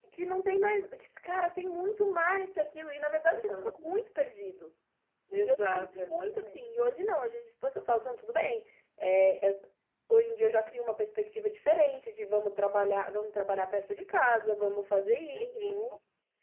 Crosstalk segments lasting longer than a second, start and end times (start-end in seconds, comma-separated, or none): 5.3-6.6